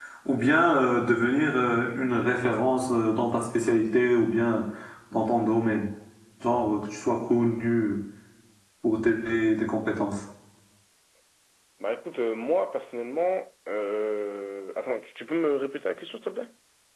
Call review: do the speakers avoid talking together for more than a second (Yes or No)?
Yes